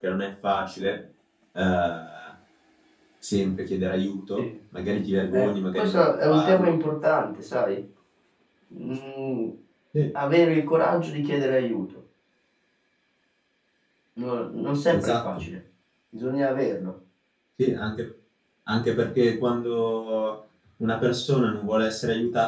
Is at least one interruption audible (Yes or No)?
Yes